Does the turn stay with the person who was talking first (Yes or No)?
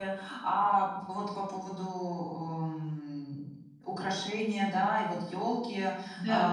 Yes